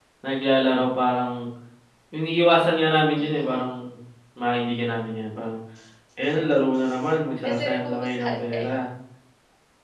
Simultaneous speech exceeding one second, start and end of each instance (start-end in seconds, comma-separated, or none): 7.4-8.7